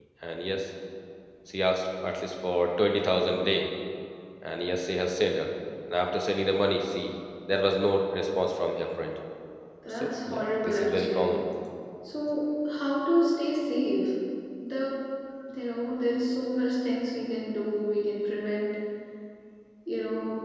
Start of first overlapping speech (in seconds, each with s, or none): 10.0 s